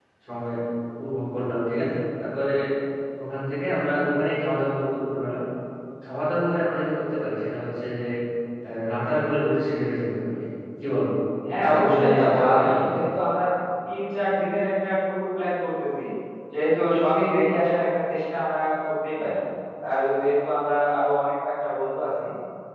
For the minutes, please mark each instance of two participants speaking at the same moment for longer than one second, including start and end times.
11.6-12.9

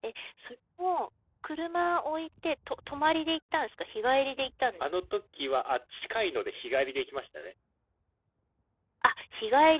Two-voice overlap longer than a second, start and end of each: none

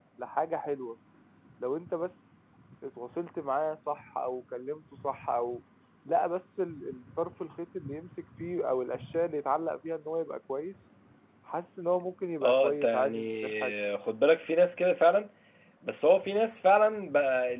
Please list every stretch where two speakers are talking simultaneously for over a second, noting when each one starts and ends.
12.4-13.7

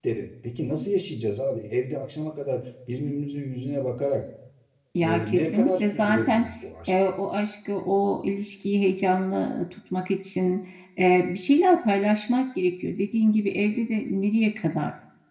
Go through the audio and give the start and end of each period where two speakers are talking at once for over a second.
5.0-6.5

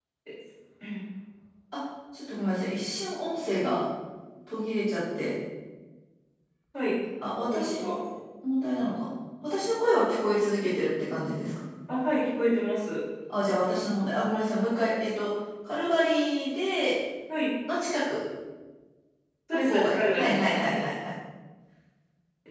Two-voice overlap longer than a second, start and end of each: 19.5-20.8

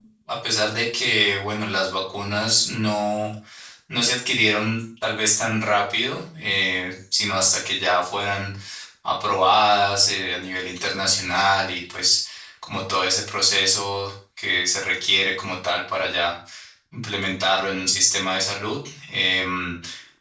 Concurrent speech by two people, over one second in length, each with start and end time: none

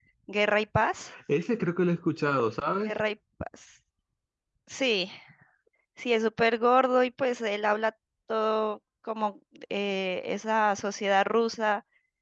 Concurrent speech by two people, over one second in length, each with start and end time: none

